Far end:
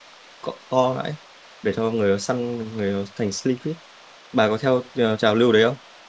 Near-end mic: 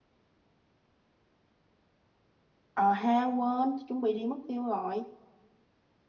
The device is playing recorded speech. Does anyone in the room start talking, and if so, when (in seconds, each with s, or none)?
2.7 s